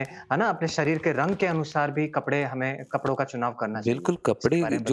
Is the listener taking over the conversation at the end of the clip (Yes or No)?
Yes